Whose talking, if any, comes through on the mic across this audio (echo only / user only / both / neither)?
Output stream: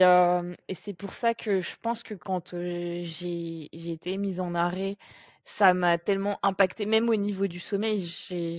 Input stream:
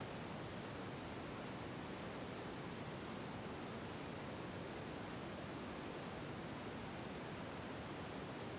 neither